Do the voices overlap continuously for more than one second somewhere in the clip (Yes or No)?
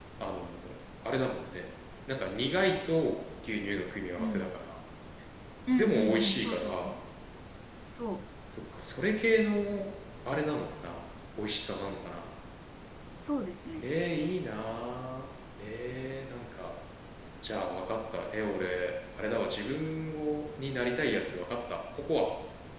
Yes